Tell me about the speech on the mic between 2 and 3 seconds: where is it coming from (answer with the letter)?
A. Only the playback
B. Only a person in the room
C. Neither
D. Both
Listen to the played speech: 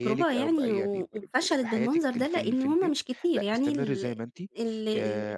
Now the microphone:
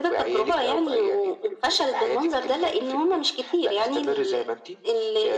A